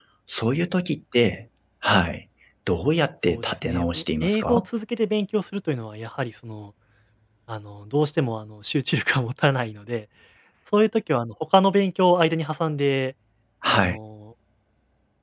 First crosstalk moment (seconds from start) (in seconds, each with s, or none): 3.3 s